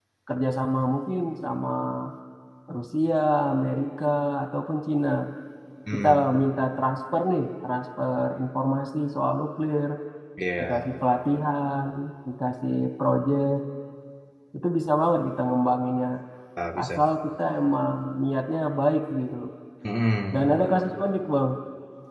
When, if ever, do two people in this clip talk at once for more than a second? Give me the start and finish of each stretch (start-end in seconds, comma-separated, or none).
none